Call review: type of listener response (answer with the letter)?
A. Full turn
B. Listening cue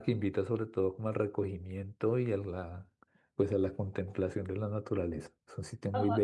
A